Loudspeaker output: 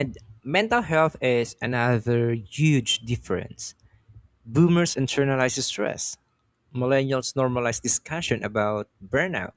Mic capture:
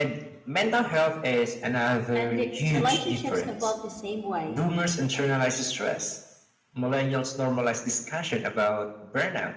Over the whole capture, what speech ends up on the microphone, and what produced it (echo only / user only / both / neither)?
both